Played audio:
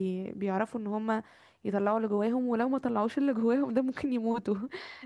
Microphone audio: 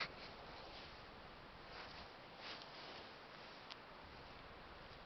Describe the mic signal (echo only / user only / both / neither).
neither